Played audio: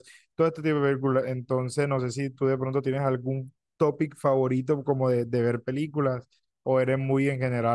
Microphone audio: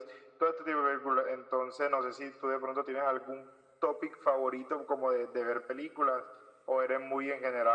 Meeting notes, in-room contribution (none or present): none